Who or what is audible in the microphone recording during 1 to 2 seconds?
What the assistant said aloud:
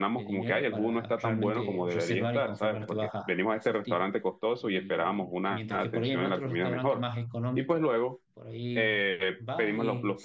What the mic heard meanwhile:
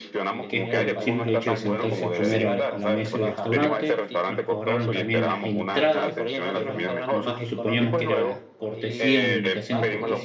both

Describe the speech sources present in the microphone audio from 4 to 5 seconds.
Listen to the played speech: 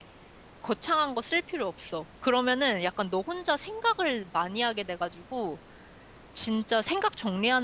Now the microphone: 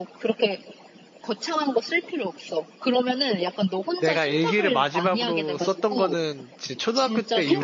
both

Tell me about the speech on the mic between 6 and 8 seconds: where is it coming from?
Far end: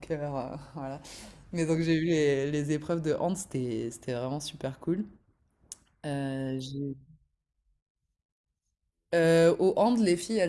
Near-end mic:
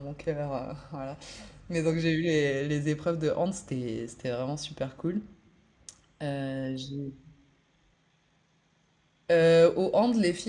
echo only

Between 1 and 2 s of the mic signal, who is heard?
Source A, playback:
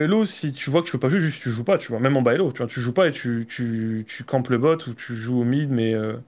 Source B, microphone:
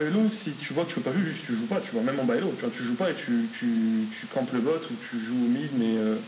echo only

